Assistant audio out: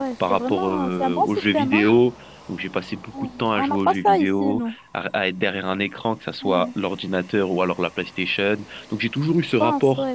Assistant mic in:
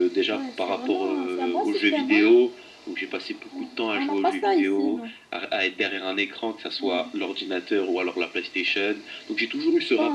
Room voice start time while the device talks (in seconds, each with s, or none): none